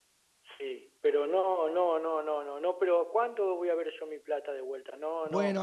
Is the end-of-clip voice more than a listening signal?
Yes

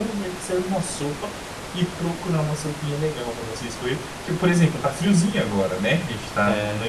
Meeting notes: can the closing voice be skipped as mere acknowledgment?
Yes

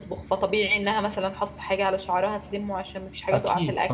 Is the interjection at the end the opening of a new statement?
No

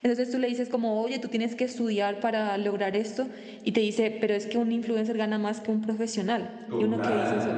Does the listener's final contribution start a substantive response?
Yes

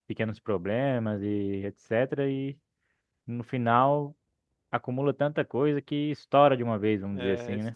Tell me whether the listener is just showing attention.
No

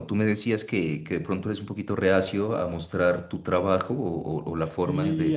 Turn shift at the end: Yes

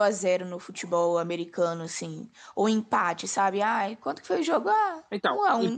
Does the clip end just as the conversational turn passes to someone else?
Yes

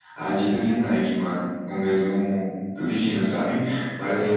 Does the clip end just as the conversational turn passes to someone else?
Yes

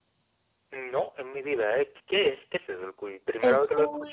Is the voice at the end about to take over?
Yes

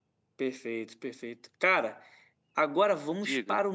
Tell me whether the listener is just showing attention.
Yes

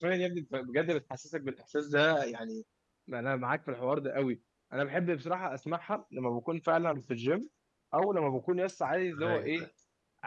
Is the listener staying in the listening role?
Yes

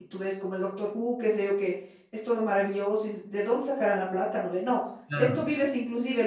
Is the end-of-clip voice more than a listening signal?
No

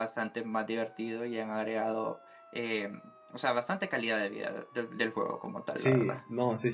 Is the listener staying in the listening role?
No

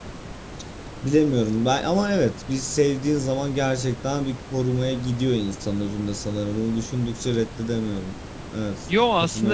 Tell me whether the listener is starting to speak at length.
Yes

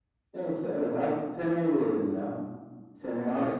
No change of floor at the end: Yes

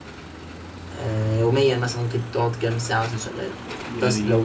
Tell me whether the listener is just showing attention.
No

